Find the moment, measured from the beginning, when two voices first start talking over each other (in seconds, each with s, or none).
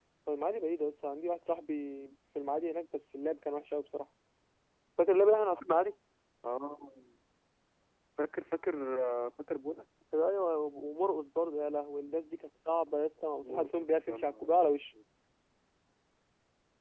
13.4 s